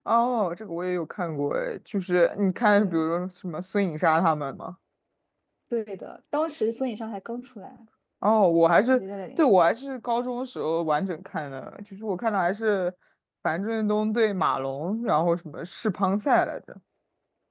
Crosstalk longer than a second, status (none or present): none